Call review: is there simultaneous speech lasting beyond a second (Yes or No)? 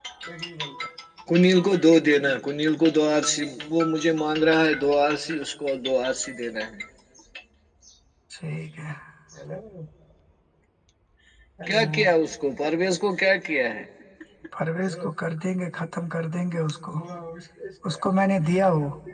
No